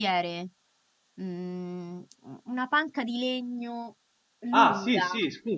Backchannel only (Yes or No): No